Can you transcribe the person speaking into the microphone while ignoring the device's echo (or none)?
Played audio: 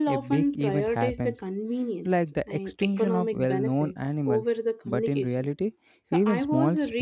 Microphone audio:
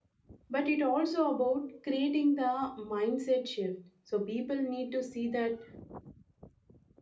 But it also about creating the mindset shift. So people need to see that